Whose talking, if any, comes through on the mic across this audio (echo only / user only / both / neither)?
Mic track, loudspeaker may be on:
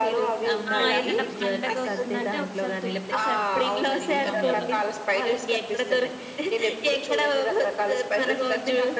both